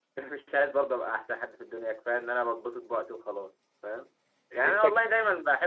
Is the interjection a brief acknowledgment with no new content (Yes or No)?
Yes